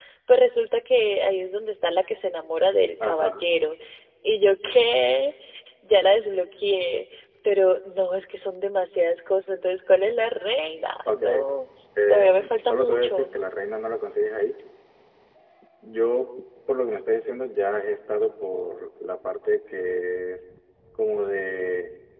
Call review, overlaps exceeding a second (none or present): present